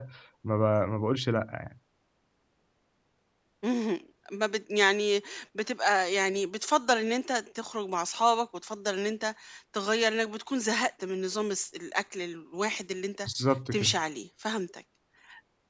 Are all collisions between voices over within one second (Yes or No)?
Yes